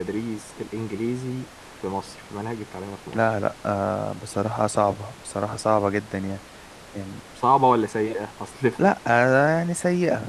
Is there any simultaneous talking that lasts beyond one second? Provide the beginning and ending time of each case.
none

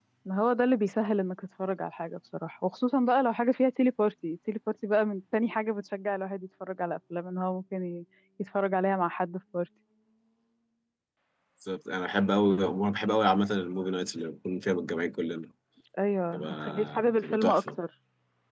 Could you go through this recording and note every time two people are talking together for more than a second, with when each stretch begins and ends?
16.3-17.7

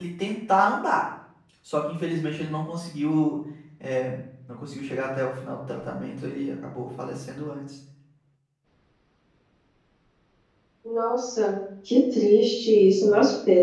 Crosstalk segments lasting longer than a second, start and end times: none

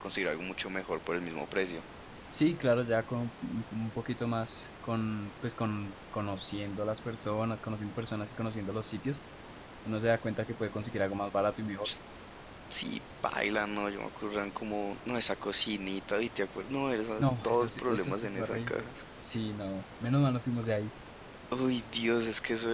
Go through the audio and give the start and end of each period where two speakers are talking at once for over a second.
17.2-18.7

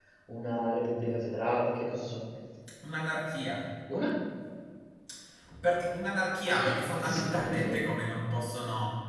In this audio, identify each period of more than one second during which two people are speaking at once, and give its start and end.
6.5-7.8

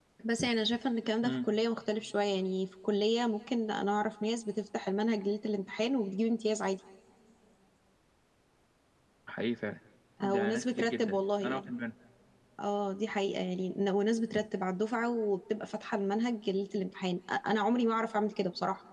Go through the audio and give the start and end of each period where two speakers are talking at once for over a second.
10.2-11.7

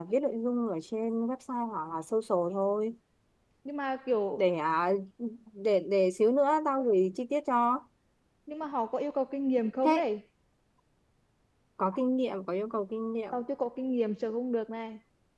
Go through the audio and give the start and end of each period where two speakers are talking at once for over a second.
none

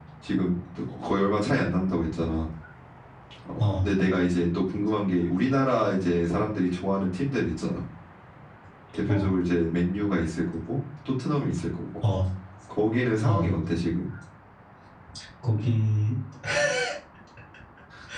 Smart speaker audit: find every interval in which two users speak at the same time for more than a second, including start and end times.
none

